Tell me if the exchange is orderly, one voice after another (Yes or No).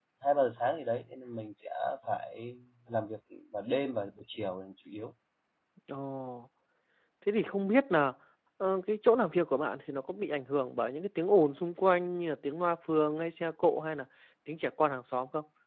Yes